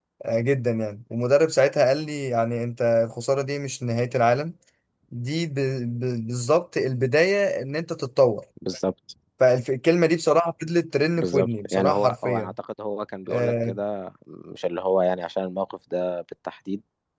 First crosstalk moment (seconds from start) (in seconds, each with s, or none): 11.1 s